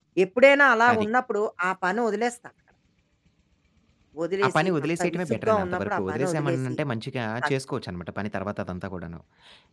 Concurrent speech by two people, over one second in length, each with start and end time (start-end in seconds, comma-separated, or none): 4.5-6.8